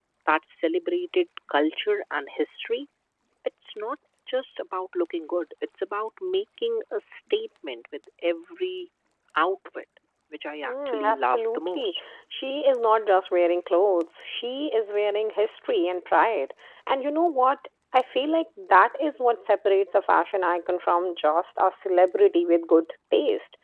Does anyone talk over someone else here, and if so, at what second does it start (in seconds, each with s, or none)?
10.7 s